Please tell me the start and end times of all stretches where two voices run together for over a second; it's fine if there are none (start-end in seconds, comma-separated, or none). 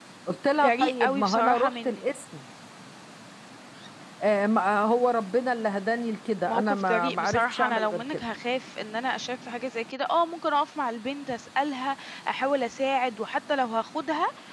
0.6-2.0, 6.5-8.2